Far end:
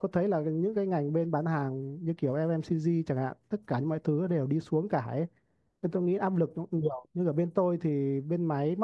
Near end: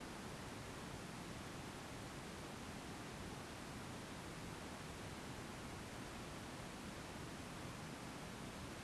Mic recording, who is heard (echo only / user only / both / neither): neither